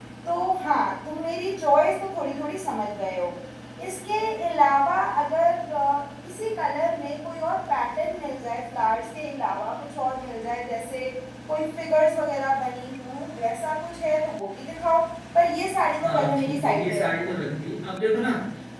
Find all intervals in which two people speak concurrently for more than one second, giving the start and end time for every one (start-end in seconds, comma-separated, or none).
16.0-17.3